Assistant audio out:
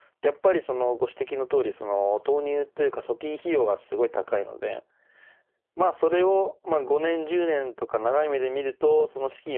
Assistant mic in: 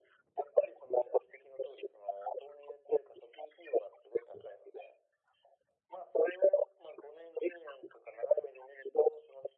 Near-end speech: none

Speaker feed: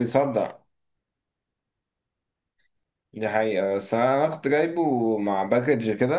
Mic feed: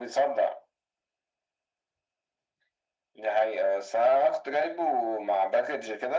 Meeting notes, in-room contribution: none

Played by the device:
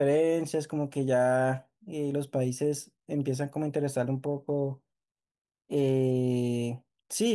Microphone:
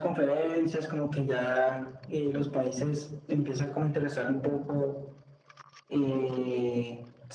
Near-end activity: none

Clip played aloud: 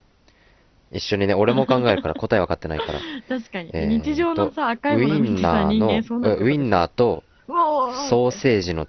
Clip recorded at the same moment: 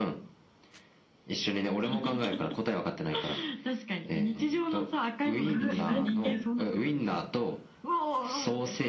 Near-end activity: present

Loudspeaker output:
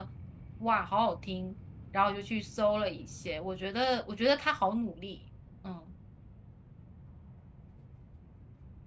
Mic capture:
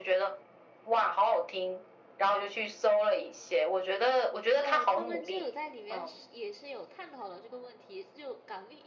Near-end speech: present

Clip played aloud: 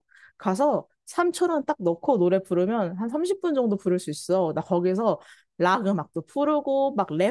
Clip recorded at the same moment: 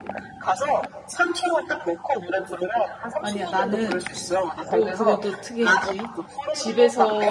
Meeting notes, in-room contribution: present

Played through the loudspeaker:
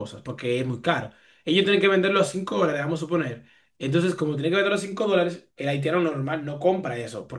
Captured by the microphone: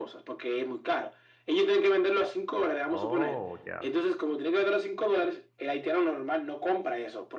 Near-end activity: present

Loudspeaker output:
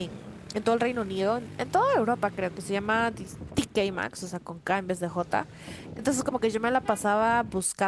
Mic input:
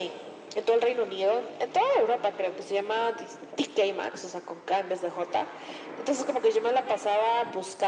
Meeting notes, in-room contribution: none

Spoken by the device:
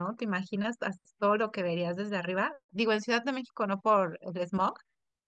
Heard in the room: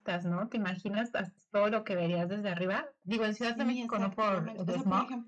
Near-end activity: present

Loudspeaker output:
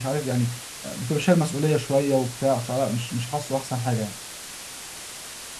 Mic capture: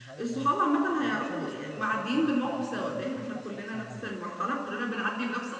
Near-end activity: present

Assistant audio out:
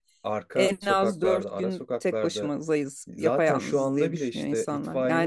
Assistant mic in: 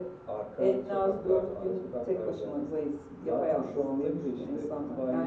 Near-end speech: none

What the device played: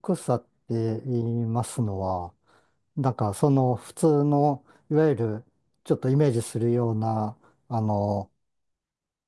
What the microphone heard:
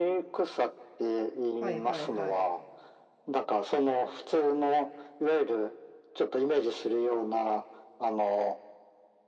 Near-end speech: present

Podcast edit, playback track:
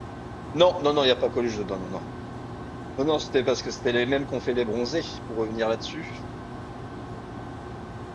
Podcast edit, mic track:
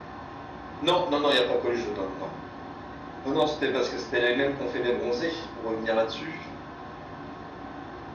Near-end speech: none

